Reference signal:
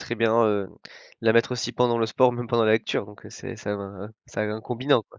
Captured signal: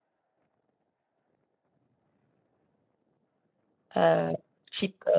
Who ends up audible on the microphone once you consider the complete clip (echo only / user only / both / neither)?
user only